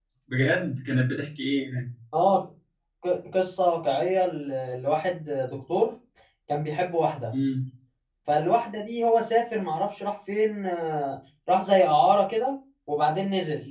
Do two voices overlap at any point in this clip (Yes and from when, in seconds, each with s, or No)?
No